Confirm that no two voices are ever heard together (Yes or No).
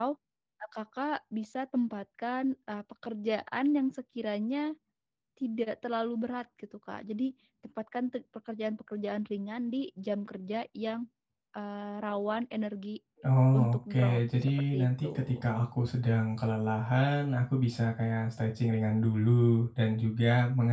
No